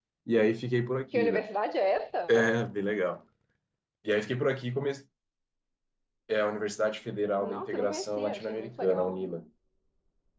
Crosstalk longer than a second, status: present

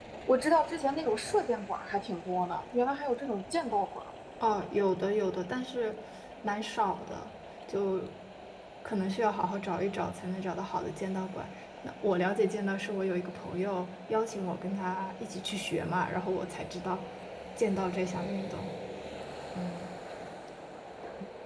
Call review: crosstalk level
none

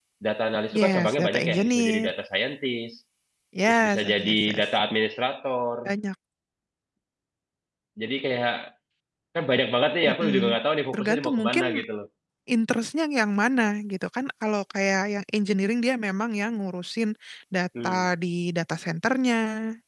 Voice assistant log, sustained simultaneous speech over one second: present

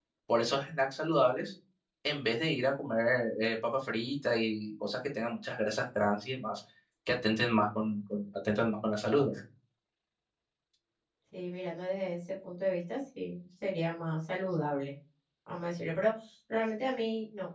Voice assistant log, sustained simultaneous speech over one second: none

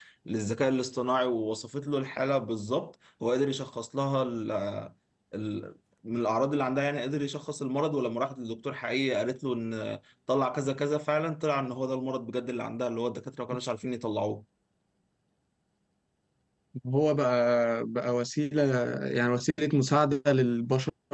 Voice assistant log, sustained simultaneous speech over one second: none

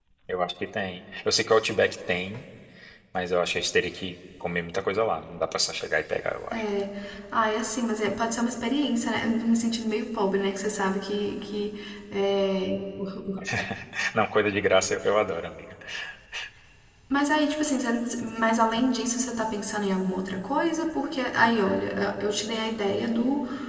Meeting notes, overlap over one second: none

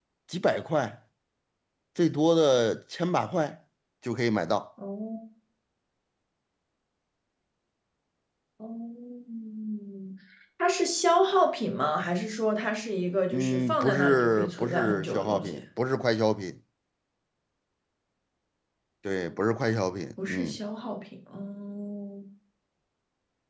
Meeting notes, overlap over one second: present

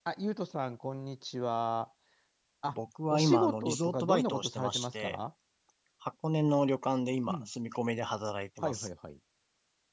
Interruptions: present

